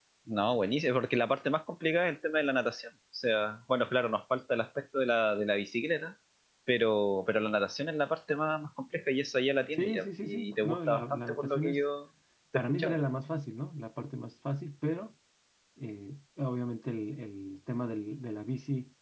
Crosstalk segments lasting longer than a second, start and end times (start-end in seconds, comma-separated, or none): 9.7-11.8